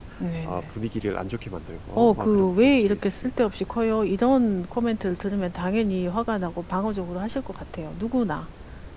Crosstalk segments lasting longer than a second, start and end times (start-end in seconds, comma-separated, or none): 2.0-3.6